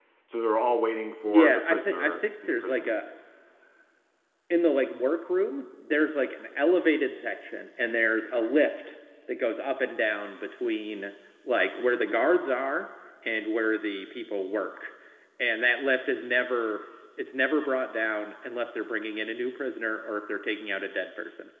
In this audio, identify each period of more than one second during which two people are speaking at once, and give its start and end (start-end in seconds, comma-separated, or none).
1.2-3.0